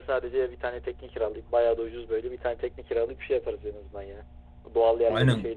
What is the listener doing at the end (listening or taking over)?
taking over